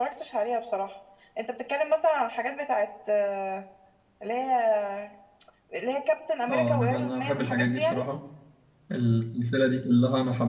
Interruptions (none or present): present